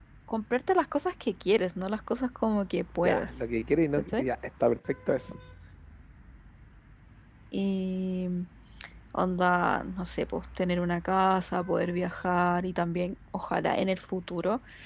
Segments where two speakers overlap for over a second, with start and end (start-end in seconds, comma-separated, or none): none